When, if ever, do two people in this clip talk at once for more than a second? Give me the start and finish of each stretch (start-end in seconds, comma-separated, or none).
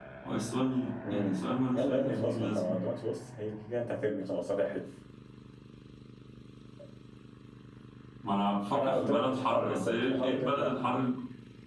1.1-2.8, 8.7-10.8